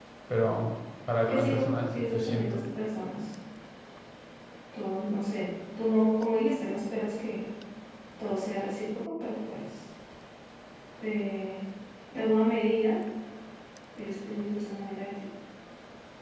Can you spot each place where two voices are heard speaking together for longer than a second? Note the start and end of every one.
1.3-2.6

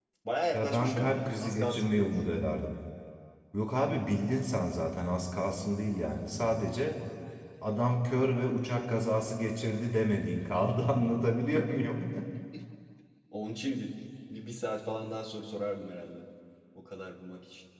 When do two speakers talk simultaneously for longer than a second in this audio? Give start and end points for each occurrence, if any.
0.5-2.2

